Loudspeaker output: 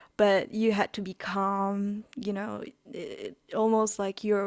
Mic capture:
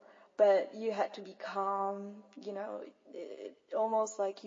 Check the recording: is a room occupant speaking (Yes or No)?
No